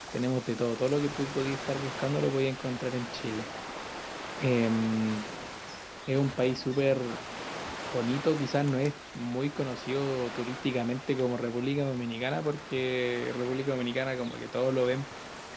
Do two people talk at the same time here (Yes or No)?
No